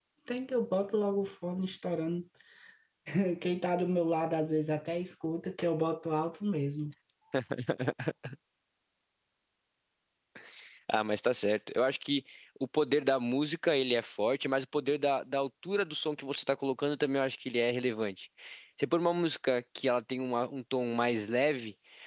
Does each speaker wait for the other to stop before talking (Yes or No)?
Yes